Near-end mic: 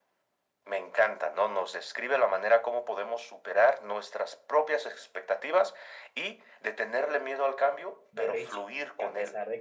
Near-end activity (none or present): present